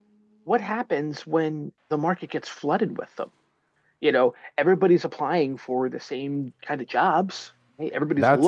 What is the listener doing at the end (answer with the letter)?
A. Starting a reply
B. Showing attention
A